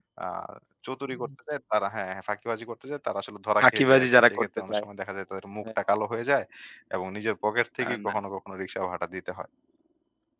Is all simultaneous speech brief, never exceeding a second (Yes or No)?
No